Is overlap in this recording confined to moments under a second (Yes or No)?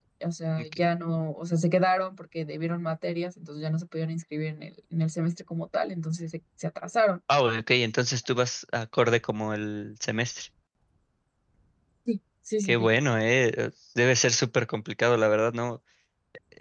Yes